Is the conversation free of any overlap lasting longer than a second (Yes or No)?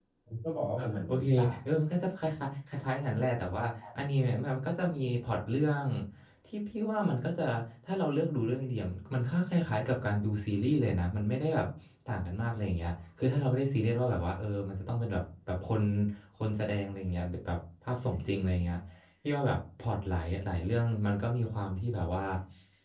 Yes